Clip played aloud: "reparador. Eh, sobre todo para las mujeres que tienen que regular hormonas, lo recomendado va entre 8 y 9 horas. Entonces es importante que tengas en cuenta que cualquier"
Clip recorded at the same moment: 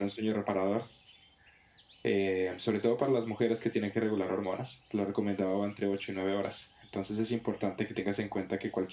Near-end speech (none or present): none